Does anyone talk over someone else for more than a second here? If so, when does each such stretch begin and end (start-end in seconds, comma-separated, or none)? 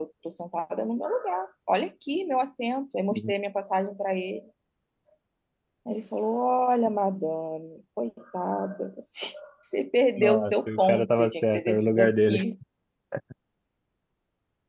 10.2-12.4